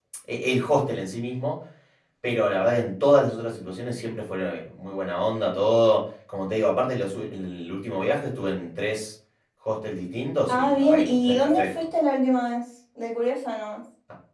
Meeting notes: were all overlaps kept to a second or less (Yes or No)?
No